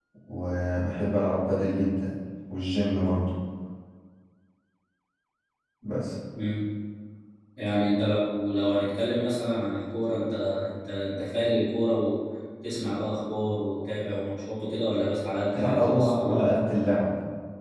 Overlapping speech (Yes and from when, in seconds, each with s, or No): Yes, from 15.5 s